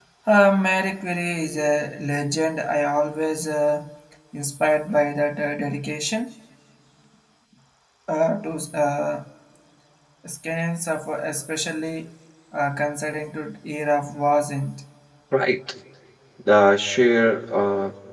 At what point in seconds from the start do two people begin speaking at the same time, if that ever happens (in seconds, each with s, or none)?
none